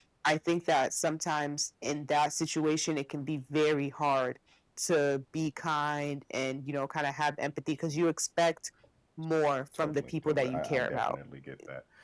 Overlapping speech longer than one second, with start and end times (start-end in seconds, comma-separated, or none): 9.7-11.2